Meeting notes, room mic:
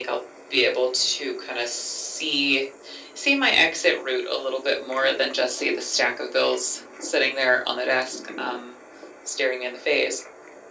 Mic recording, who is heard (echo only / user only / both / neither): echo only